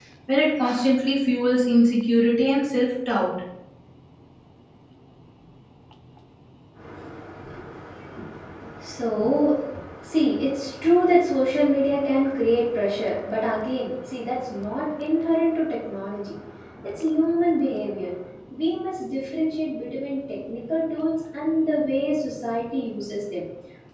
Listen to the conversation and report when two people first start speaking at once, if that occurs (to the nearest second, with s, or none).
none